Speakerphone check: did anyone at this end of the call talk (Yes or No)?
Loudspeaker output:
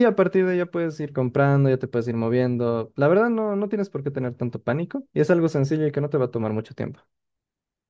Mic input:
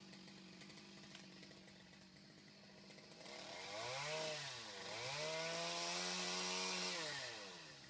No